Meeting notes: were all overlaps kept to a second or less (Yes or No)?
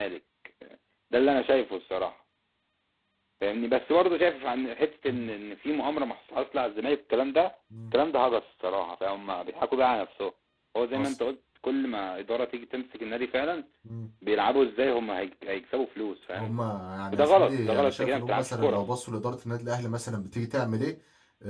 No